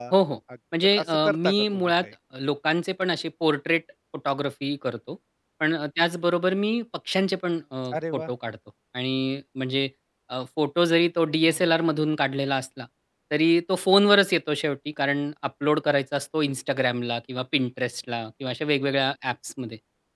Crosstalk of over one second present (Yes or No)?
Yes